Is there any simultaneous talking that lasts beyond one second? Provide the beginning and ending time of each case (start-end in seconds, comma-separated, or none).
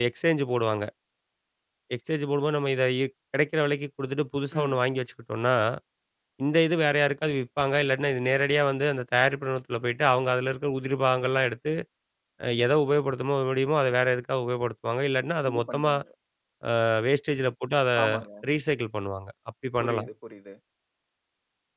none